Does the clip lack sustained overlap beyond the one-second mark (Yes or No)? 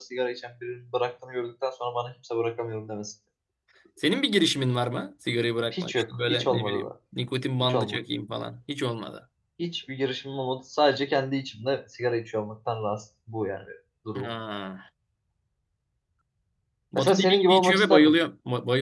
No